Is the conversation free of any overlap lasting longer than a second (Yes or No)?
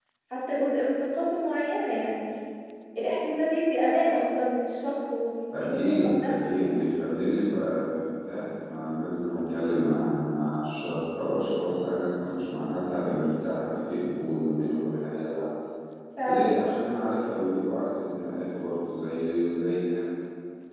No